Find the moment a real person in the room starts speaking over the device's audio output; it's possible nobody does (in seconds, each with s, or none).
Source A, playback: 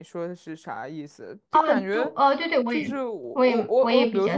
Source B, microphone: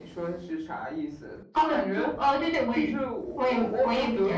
none